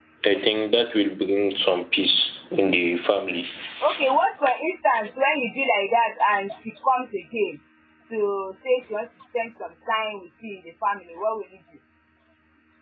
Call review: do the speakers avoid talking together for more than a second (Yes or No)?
Yes